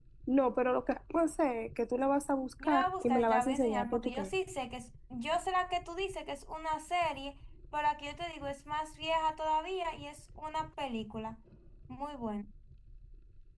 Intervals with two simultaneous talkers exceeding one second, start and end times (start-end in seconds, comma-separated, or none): 2.6-4.3